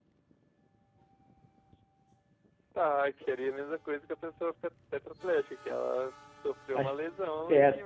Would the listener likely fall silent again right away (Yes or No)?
No